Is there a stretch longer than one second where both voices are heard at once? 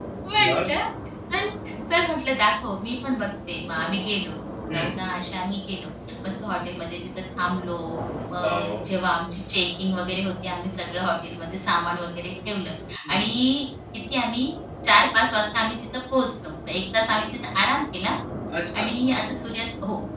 No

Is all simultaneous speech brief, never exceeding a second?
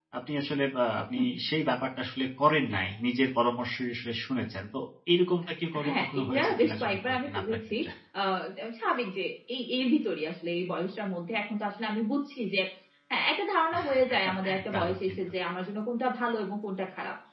No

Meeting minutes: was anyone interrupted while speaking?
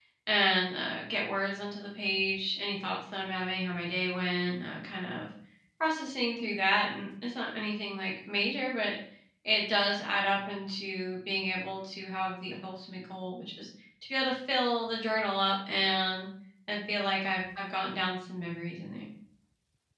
No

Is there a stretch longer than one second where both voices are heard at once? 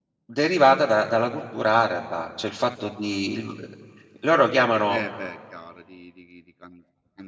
No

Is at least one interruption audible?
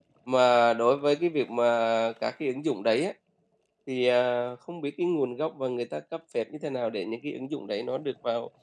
No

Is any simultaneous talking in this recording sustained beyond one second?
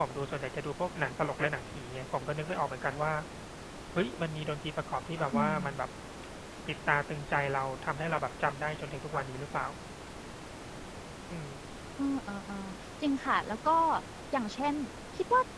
No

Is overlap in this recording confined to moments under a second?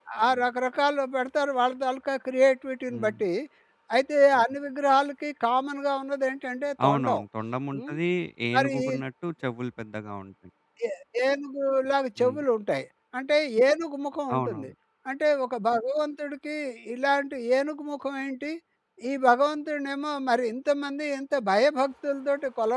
Yes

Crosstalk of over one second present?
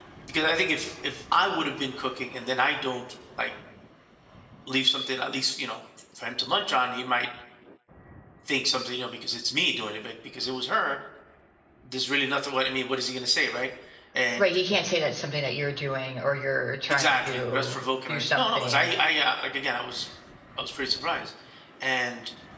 Yes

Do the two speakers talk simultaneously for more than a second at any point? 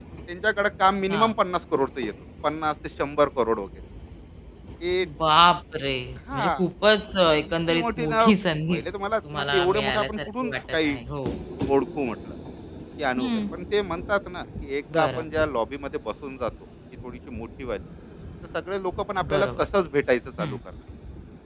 Yes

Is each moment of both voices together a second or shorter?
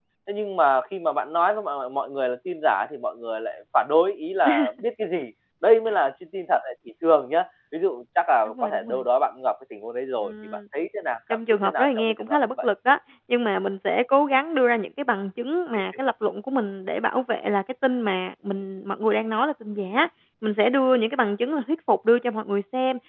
No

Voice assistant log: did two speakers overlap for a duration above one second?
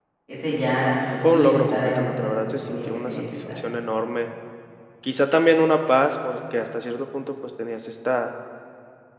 Yes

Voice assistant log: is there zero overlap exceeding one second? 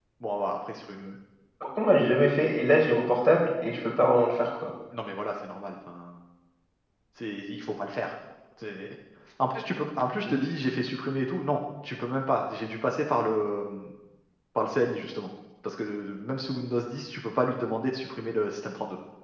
Yes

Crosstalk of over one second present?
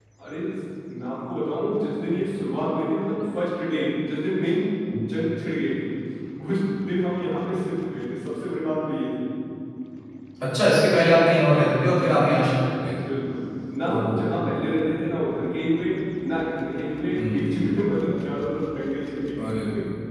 No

